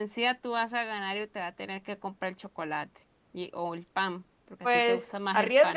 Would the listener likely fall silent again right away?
No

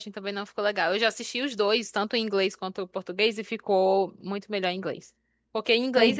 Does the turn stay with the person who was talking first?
Yes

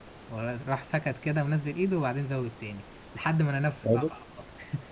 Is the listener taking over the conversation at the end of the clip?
No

